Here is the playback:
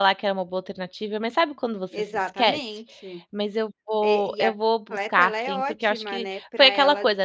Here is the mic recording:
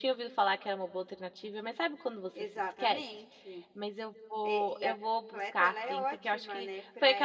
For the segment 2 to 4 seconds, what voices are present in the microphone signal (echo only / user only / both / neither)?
echo only